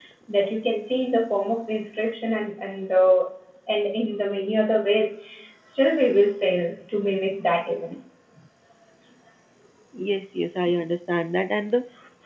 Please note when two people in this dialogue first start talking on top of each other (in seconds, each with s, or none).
none